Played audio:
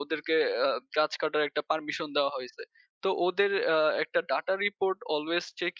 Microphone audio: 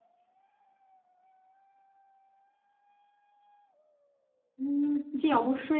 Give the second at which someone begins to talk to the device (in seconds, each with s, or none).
4.6 s